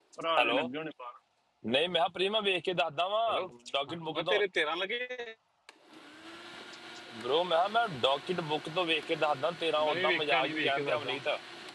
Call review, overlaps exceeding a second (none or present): present